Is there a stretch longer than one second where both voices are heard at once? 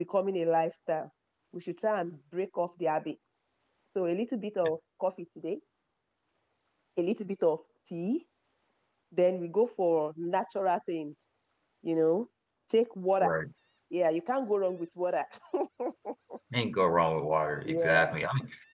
No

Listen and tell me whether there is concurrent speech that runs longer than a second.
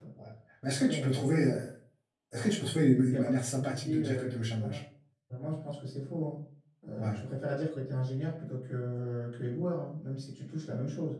Yes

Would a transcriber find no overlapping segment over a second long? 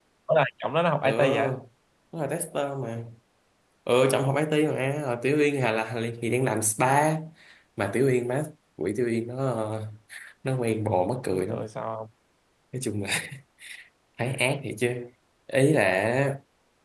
Yes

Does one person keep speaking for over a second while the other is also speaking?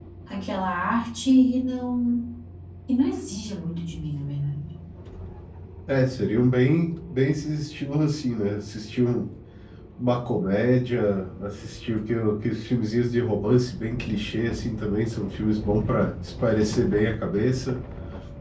No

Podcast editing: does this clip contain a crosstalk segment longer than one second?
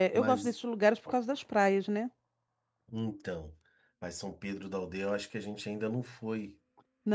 No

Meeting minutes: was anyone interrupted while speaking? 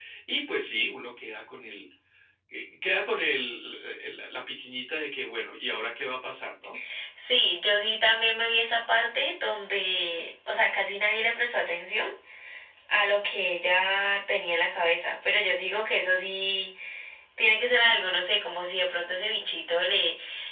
No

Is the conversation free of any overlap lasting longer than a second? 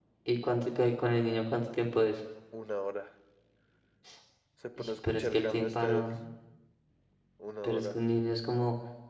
No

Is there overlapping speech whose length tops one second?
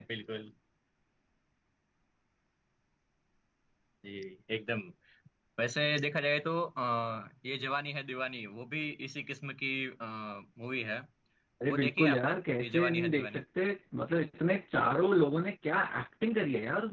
Yes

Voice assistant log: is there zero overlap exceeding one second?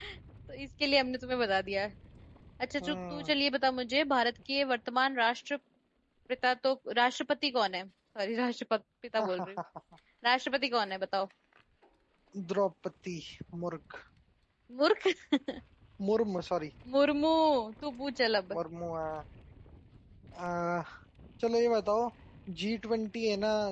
Yes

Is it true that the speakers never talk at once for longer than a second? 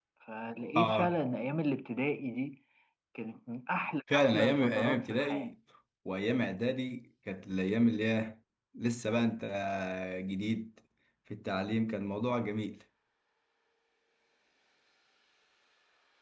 No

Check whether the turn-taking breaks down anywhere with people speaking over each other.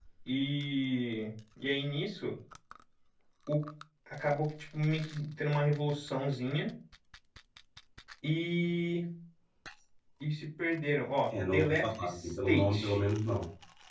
Yes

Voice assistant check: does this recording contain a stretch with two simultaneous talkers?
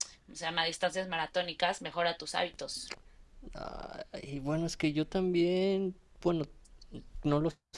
No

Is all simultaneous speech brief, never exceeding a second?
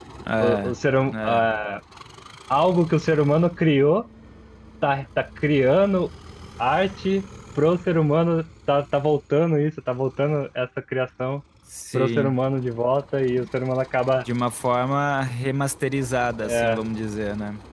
Yes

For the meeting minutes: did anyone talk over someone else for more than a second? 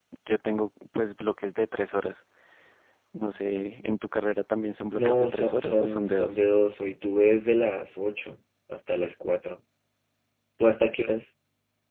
Yes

